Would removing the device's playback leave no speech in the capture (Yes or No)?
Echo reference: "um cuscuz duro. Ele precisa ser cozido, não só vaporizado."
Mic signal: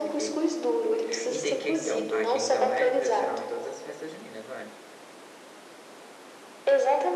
No